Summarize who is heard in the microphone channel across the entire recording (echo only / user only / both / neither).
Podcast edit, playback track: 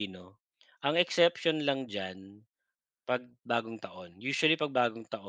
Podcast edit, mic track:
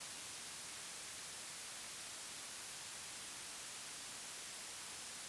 neither